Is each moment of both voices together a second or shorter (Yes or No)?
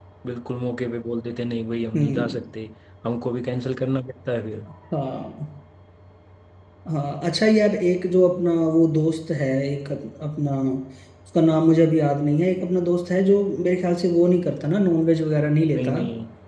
Yes